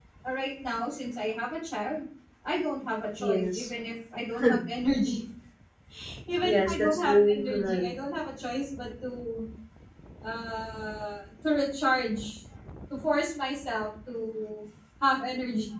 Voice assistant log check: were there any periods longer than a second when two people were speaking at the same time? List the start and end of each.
6.4-7.8

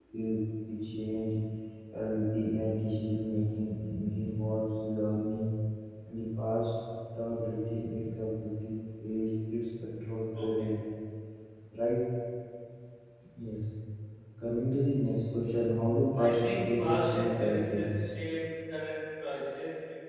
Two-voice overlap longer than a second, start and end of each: 16.2-18.0

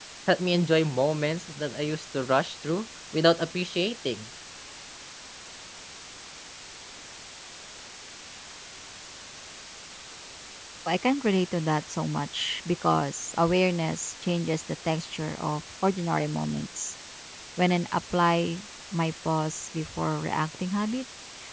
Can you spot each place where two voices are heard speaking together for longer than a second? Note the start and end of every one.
none

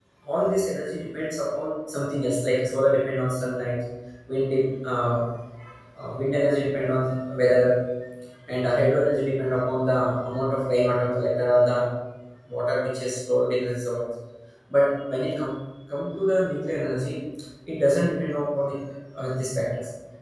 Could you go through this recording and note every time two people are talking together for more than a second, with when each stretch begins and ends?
none

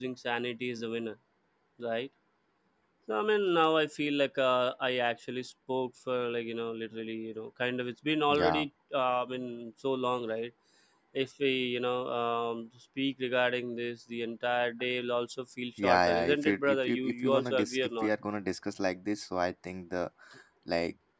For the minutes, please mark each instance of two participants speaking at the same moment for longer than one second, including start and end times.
15.8-18.1

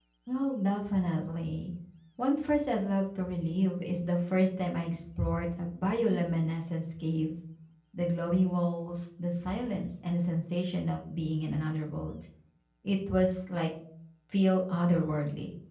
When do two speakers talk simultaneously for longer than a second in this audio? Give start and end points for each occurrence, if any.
none

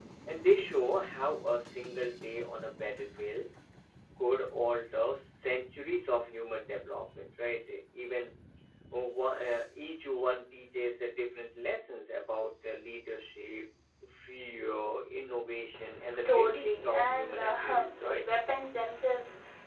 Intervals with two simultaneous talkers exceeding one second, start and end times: 16.2-18.2

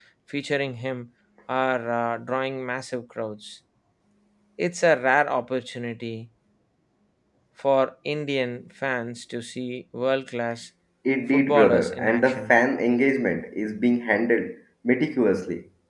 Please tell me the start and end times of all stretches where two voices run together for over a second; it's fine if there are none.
11.3-12.6

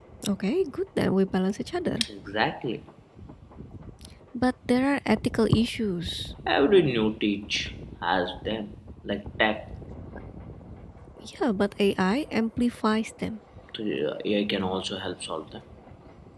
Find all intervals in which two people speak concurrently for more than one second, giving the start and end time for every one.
none

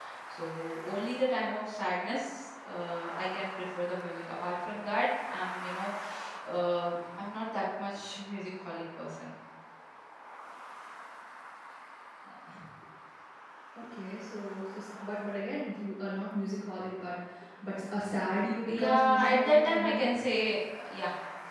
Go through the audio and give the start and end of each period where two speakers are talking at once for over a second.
18.6-20.1

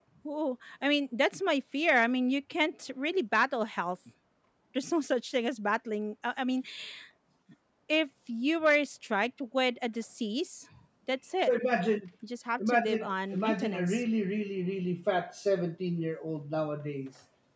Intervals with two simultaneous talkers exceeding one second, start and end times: 12.6-14.0

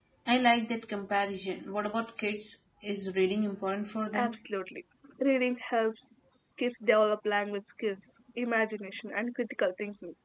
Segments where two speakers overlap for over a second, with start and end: none

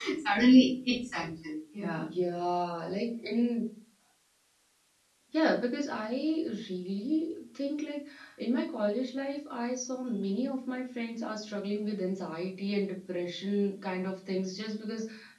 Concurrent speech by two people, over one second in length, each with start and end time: none

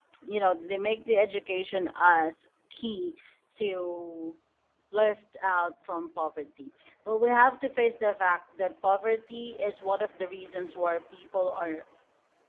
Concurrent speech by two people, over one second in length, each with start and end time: none

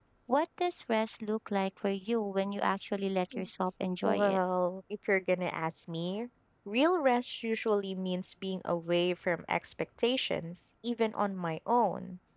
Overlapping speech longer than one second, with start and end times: none

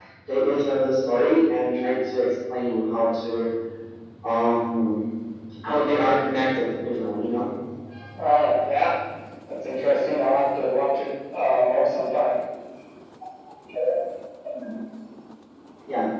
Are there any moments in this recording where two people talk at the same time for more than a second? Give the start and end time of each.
none

